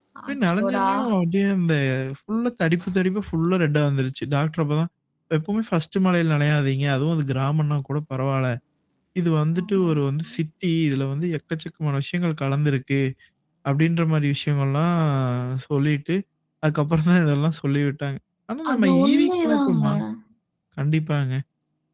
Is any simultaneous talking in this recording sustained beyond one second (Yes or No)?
Yes